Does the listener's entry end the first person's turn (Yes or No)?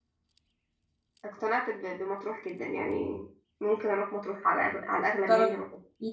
Yes